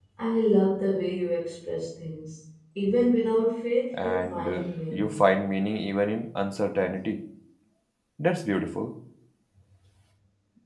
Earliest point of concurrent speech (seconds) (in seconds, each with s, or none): 3.9 s